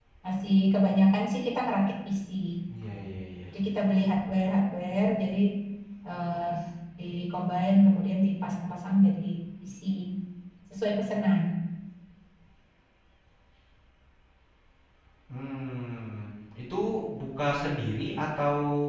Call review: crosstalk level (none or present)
none